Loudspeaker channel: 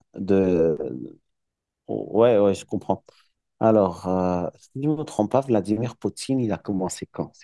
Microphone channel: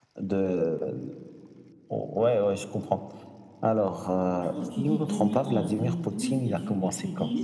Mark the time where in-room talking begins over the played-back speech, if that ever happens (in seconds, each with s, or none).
4.4 s